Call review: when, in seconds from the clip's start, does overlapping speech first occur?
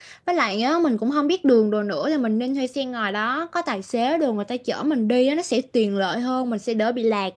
none

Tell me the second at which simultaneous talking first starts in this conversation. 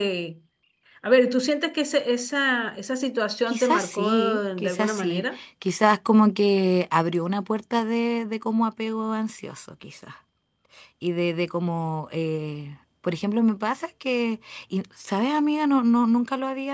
3 s

